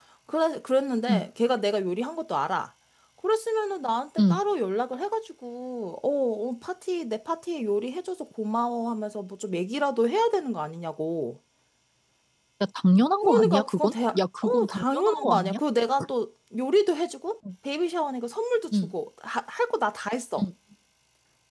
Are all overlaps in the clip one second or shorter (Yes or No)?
No